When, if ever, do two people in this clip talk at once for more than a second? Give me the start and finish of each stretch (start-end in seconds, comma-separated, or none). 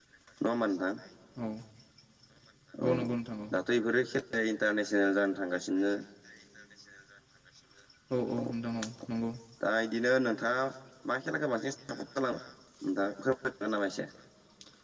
none